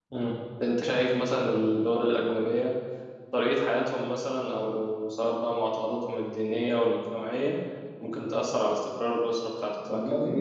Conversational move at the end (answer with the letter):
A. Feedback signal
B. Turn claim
B